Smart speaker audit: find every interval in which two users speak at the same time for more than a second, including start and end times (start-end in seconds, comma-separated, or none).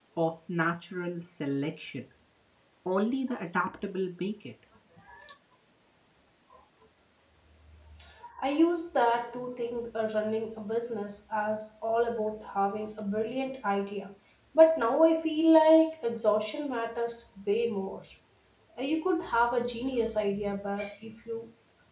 none